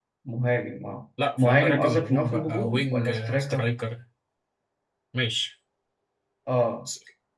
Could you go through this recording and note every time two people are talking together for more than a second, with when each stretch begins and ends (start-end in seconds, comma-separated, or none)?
1.4-3.7